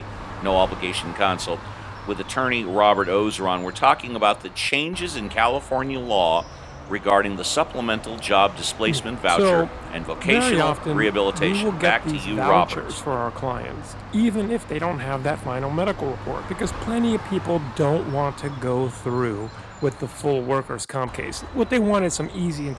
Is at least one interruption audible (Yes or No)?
Yes